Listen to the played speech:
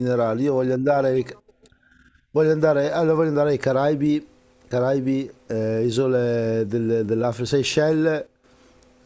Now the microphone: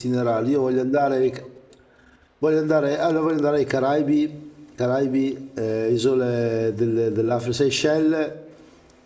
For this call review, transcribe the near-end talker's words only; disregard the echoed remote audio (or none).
none